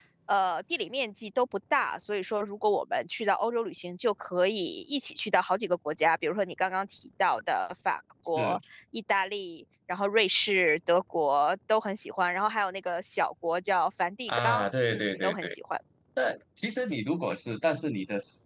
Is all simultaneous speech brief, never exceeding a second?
No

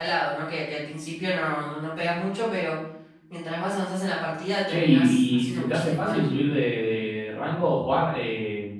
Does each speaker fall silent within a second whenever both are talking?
No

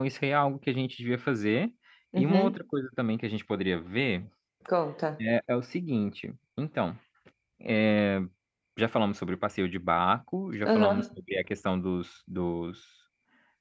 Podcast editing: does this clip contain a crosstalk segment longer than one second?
No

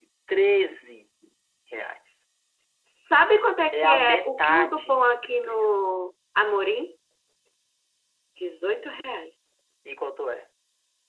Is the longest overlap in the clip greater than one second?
Yes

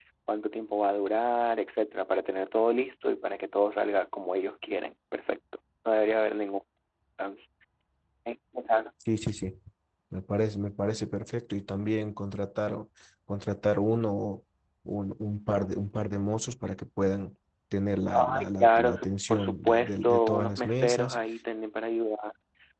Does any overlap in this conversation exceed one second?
Yes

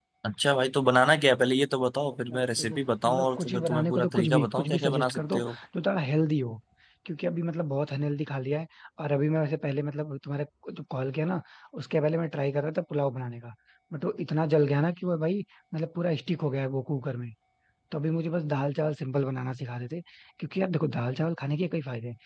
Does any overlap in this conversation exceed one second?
Yes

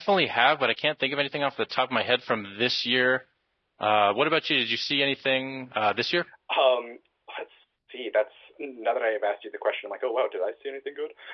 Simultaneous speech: No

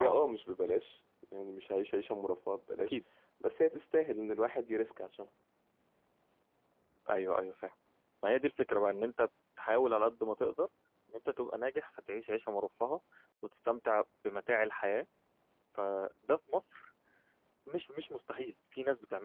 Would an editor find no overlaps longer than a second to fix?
Yes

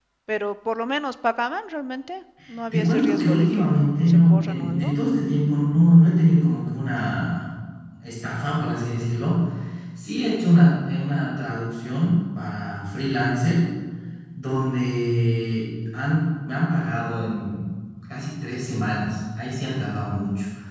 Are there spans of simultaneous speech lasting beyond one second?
Yes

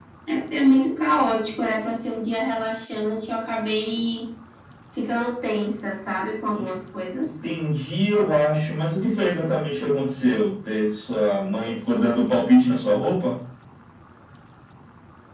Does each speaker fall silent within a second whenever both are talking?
Yes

